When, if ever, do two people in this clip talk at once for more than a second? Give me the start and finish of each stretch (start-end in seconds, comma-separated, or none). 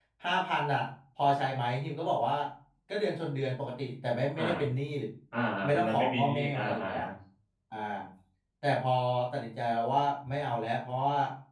5.6-7.0